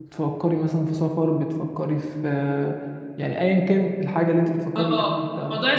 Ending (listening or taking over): taking over